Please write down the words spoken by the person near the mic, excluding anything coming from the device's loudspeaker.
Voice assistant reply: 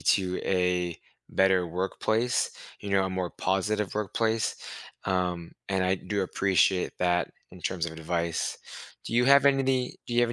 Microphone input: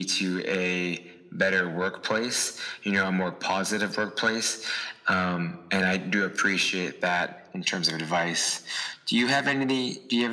none

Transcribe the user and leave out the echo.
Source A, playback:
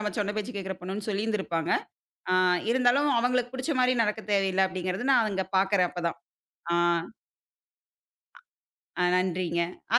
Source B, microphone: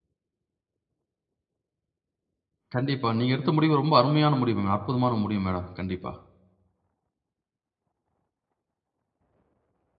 கண்டிப்பா. நீங்க எடுத்த முடிவு ரொம்ப அருமையான முடிவுங்க. அற்புதமான முடிவு மேடம். கண்டிப்பா.

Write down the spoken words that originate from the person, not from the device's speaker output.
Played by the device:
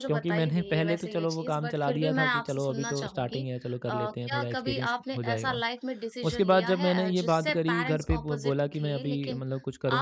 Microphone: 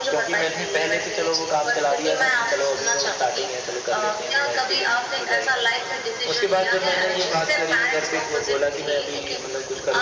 none

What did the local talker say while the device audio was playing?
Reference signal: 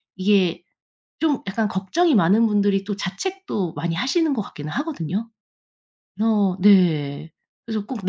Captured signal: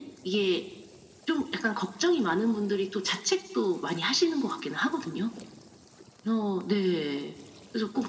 none

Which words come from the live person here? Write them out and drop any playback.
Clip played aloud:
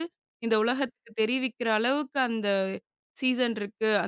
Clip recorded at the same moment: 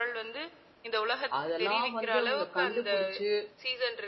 அதெல்லாம் வந்து அவங்க கண்டுபிடிச்சு,

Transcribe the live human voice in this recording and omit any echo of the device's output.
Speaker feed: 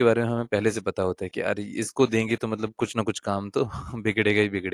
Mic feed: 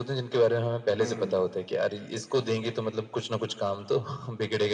हुँ।

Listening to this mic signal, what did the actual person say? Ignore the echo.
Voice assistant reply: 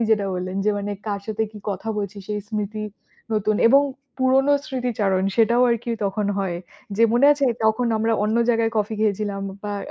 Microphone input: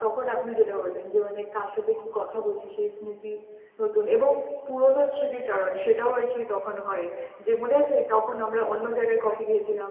none

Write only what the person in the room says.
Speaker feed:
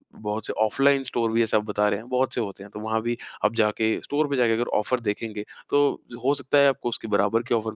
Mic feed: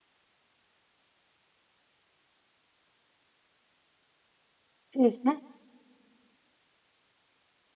ठीक है।

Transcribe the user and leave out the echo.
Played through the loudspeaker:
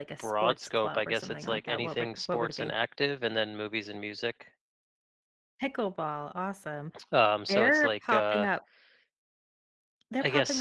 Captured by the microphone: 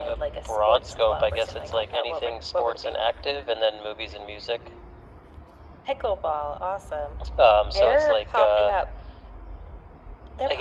none

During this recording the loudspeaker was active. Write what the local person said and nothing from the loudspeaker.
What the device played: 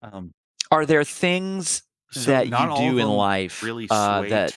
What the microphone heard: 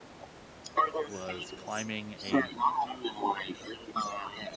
was climbing a

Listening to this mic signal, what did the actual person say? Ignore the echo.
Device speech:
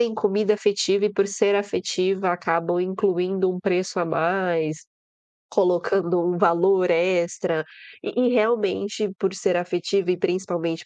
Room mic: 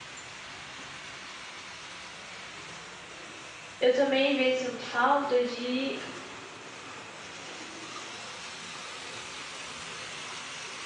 Eu também às vezes sinto falta de,

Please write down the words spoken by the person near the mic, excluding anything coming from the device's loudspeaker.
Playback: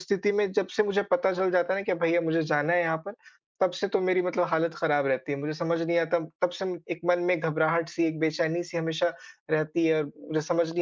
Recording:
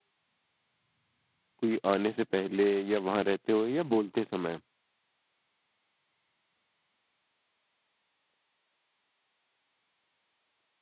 कोई आने से पहले या वहाँ रहते हुए या बोलते समय?

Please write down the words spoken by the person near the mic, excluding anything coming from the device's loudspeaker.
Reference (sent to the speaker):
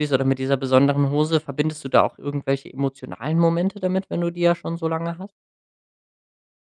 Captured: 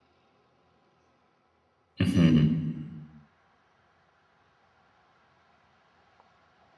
Mhm.

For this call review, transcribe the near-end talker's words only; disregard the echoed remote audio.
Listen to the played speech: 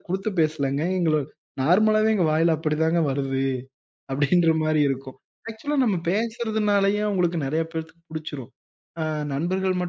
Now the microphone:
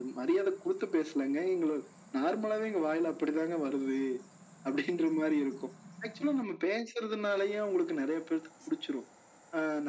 none

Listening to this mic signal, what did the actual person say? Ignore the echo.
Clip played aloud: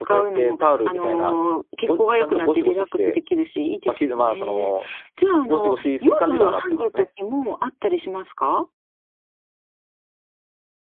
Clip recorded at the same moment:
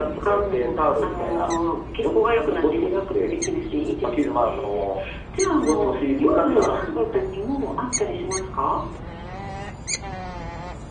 none

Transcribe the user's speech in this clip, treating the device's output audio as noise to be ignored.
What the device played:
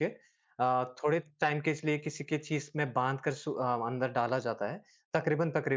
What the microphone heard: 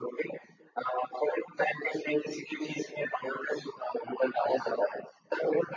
none

